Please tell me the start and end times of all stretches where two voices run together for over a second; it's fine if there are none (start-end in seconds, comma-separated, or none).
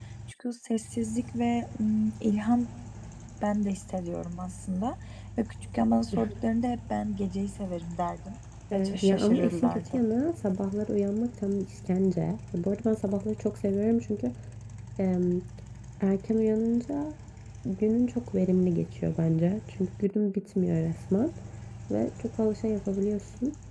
8.7-10.0